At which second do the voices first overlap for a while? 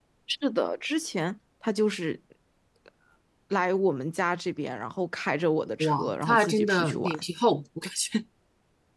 5.8 s

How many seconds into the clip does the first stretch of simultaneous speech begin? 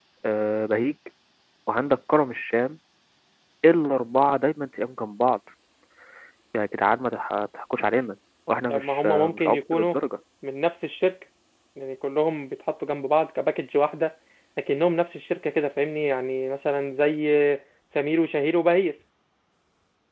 8.7 s

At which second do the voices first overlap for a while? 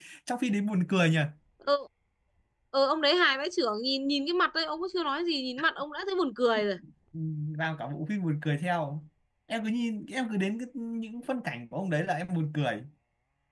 none

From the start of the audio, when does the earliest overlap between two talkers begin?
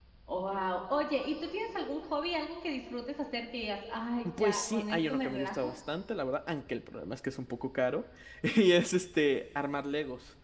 4.2 s

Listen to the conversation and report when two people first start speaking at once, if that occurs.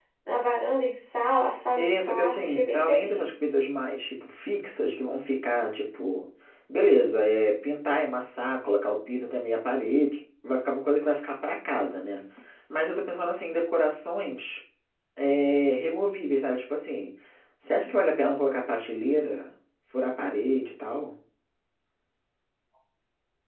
1.8 s

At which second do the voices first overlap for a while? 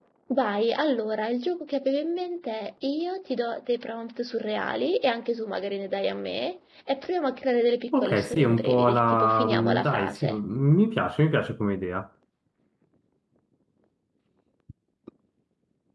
7.9 s

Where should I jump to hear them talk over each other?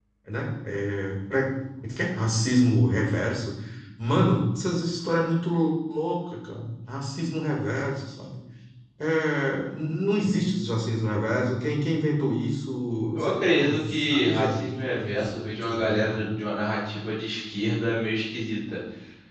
13.2 s

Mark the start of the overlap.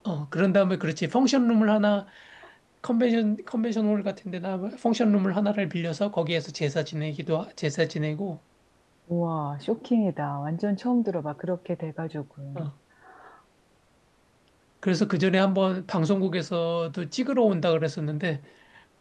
none

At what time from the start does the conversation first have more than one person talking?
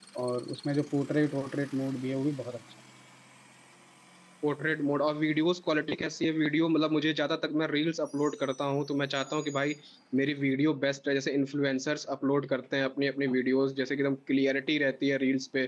none

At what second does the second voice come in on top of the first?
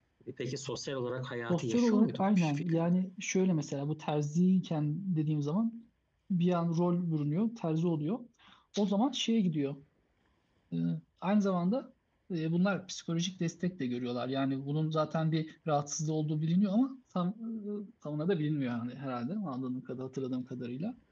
1.5 s

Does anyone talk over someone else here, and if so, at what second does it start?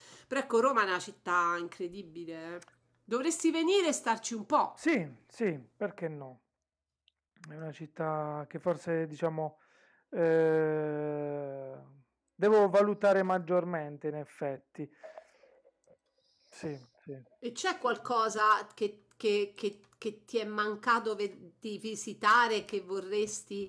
none

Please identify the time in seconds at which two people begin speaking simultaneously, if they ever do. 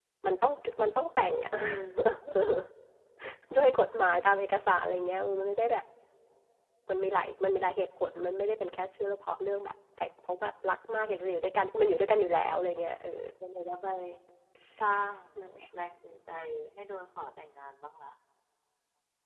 none

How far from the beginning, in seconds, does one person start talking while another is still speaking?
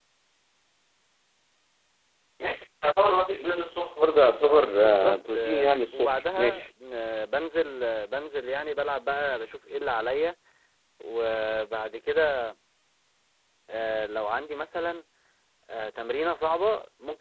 4.4 s

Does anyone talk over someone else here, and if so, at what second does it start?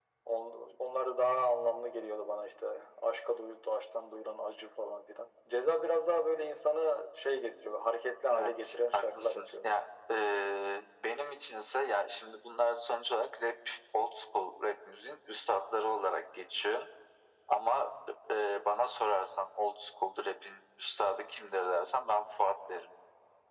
8.3 s

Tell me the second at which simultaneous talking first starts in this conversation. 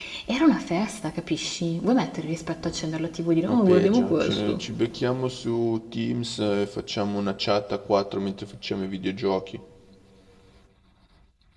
3.5 s

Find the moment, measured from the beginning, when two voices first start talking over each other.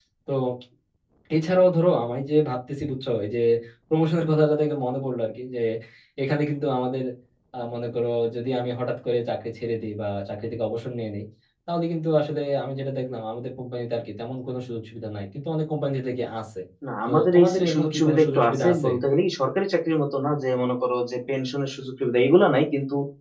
17.0 s

